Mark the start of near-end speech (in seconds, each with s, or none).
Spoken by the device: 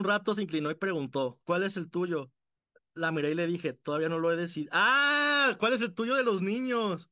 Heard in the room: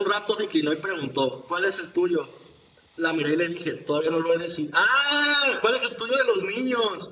none